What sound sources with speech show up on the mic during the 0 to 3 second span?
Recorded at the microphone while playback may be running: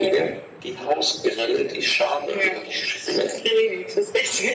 echo only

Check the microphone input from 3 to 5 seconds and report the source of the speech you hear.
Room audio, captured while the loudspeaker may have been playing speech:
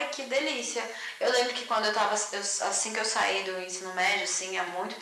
echo only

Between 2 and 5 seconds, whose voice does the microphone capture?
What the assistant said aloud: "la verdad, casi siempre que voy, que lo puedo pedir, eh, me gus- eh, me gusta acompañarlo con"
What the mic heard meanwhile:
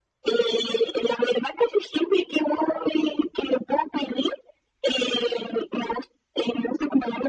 echo only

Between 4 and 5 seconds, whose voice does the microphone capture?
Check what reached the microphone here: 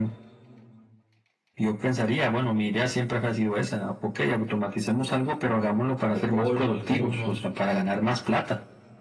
echo only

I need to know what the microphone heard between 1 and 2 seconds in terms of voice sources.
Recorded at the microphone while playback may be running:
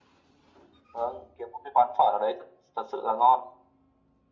echo only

